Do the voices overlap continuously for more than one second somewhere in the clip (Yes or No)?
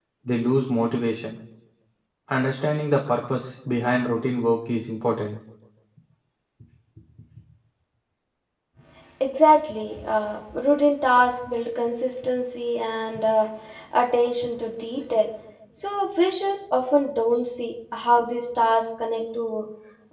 No